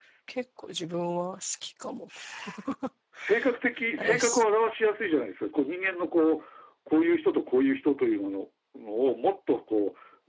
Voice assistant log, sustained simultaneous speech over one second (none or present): none